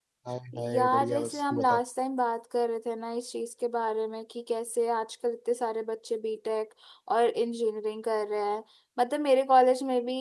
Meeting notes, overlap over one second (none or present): present